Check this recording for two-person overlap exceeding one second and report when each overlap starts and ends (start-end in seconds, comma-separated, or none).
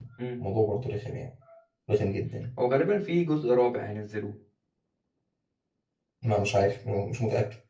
none